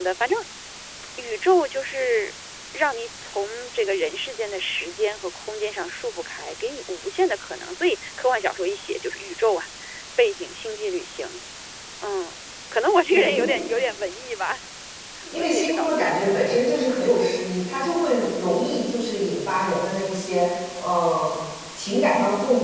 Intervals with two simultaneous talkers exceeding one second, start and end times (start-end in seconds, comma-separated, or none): 15.4-16.6